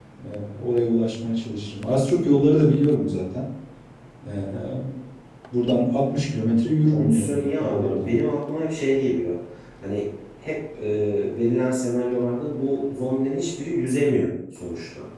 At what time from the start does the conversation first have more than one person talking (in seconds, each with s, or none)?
6.8 s